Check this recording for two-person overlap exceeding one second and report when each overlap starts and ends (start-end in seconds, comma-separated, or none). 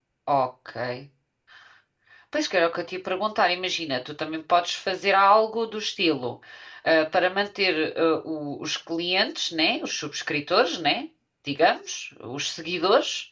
none